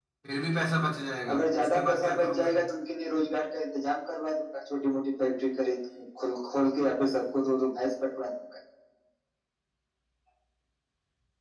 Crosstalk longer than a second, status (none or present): present